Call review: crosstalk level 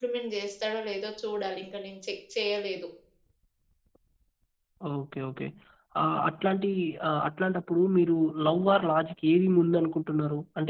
none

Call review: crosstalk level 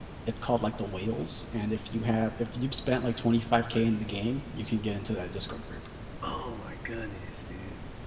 none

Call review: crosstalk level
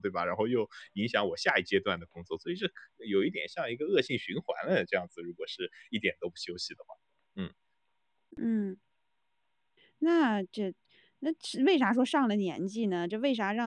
none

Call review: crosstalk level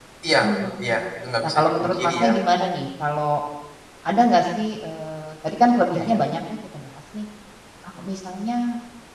present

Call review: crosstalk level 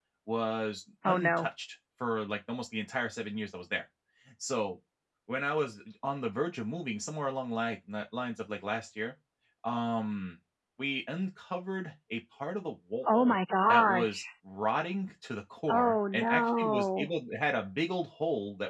present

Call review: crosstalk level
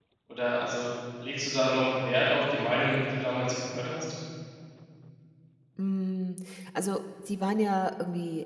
none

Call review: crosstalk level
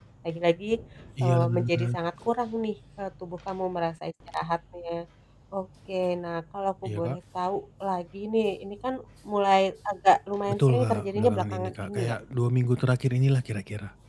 present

